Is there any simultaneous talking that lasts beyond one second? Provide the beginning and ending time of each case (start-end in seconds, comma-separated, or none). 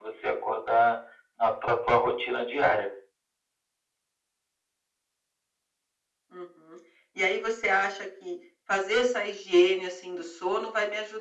none